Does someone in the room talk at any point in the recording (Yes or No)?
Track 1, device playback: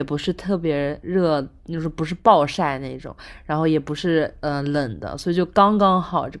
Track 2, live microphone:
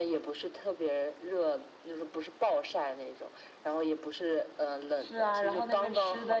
Yes